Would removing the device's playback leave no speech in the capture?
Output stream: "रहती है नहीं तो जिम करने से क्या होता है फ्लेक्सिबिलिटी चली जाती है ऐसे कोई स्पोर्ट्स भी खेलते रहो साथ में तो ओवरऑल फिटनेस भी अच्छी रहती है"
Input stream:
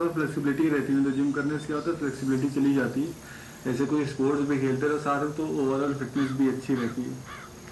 Yes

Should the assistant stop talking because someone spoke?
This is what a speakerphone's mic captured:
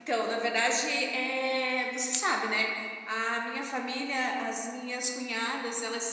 Yes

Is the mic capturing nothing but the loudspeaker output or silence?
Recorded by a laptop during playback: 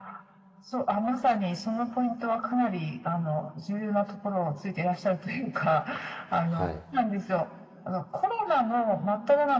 No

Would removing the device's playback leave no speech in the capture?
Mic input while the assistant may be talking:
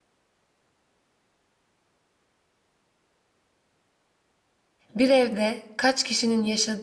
No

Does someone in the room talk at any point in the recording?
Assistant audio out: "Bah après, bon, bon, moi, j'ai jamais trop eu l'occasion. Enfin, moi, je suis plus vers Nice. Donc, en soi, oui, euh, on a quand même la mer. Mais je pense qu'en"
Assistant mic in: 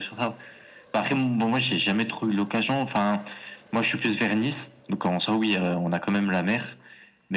No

